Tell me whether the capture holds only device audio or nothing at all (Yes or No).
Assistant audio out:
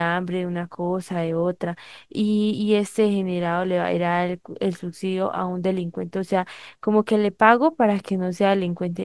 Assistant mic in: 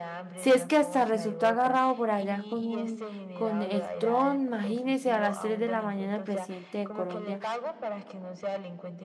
No